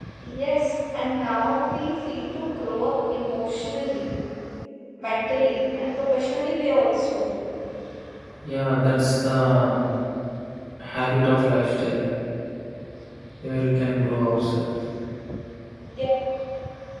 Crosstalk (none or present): none